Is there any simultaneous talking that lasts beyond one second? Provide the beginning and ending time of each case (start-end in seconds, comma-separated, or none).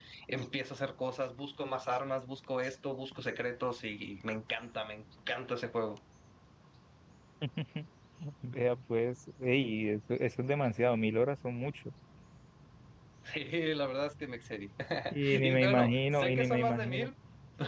15.3-17.1